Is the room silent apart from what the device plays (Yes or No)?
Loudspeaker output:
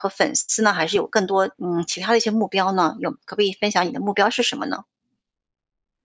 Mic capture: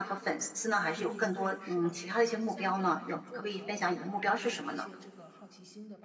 No